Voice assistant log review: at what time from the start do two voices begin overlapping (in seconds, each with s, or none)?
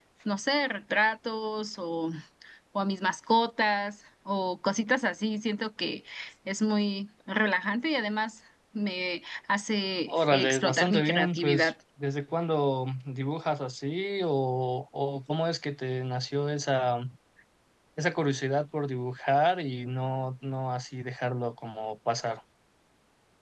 10.1 s